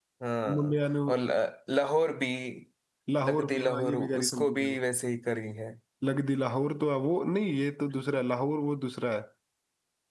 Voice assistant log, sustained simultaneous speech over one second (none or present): present